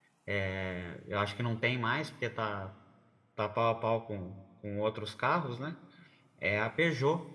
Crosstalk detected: No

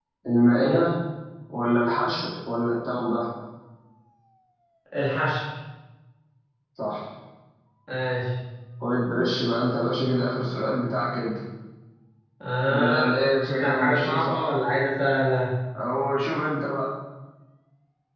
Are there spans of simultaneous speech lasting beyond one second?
Yes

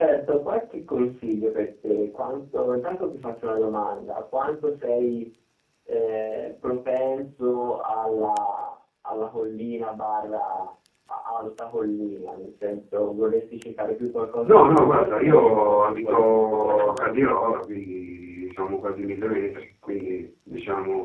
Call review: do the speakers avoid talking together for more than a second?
No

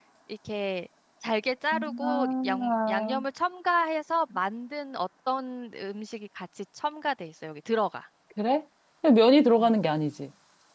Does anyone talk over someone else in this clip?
Yes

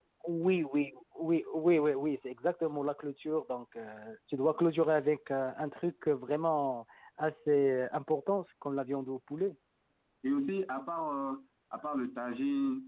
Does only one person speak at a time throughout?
Yes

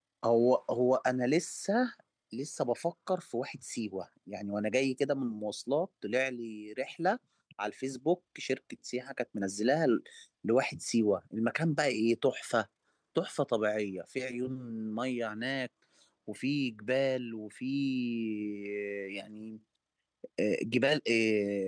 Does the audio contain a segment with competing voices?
No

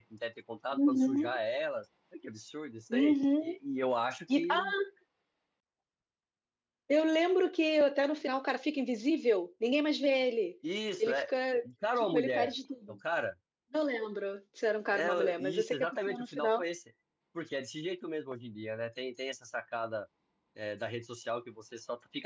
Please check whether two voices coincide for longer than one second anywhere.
Yes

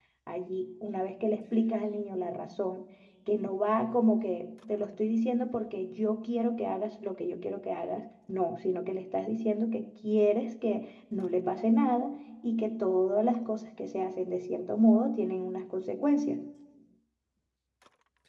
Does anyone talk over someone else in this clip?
No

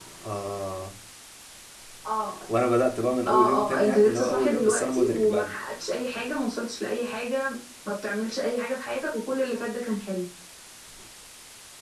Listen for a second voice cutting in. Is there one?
Yes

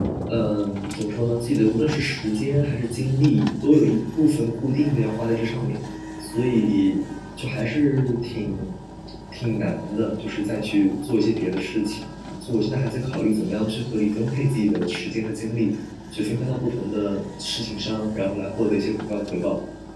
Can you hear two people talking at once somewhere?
No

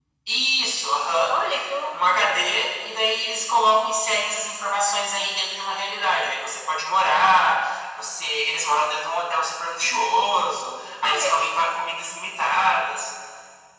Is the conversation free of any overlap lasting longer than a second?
Yes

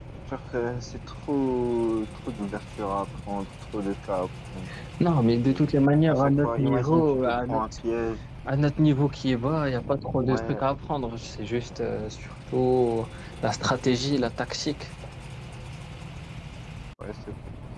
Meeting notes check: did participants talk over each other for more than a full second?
Yes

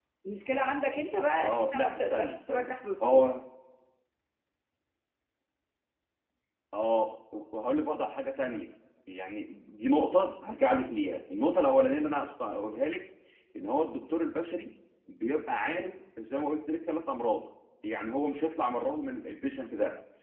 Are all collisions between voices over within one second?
No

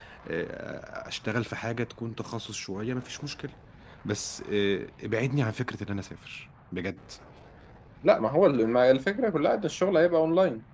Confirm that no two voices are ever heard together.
Yes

